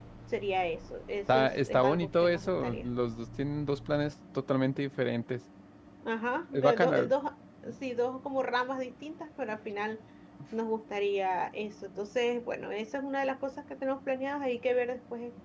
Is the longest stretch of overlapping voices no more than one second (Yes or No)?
No